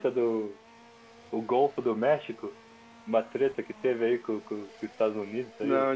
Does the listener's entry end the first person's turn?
Yes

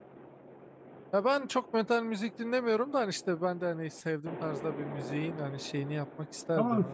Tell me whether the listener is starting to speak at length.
Yes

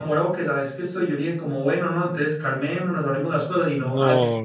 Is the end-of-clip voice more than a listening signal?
No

